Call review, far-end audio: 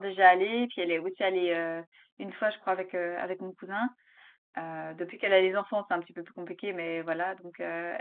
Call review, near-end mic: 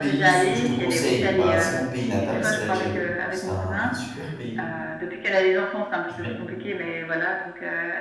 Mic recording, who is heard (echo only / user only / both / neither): both